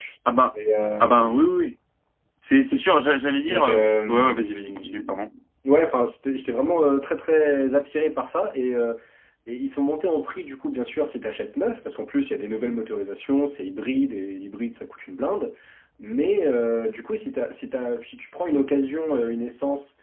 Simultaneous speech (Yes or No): Yes